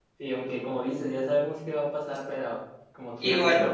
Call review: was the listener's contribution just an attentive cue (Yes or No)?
Yes